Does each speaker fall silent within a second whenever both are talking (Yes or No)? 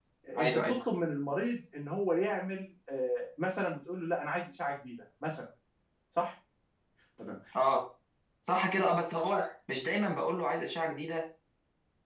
Yes